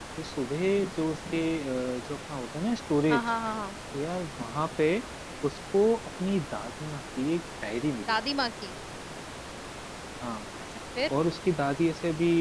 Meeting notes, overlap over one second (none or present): none